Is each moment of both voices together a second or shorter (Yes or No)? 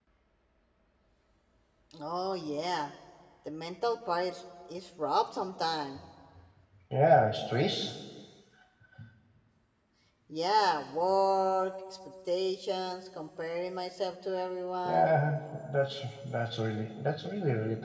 Yes